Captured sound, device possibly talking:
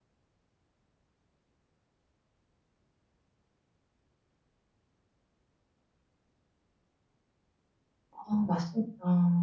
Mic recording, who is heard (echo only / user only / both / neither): user only